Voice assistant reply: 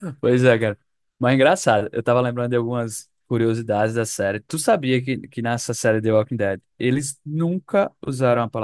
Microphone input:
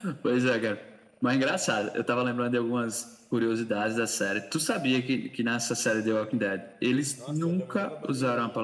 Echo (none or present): present